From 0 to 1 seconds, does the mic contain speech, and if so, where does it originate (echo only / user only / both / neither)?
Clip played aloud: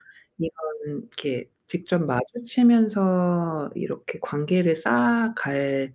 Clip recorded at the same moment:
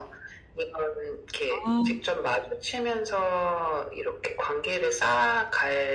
echo only